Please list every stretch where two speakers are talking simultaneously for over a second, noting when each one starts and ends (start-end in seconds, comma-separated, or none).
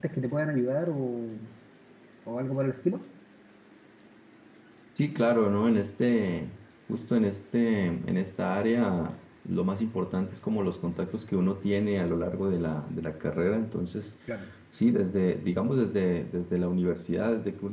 none